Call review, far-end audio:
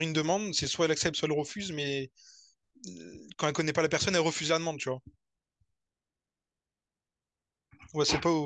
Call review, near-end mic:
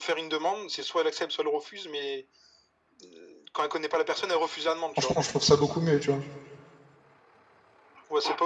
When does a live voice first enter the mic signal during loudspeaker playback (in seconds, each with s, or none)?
4.9 s